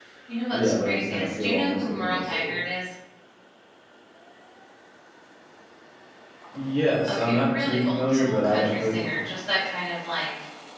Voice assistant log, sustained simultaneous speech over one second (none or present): present